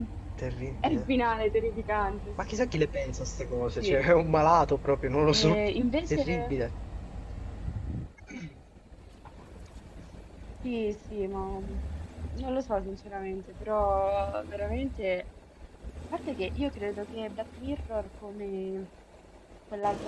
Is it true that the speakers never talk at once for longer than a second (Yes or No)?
Yes